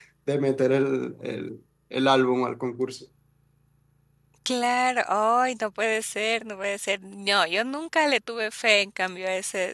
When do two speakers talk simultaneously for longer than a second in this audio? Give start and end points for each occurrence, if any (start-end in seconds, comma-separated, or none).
none